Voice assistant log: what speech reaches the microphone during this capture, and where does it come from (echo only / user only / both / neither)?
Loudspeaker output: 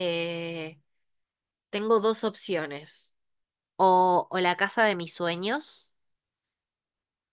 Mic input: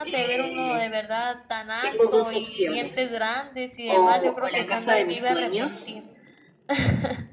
both